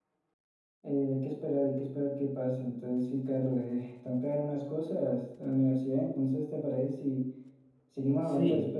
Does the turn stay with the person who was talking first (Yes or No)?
No